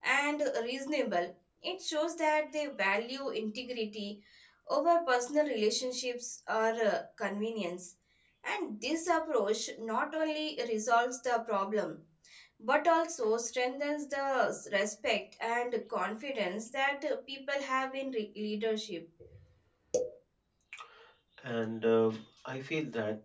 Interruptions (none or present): none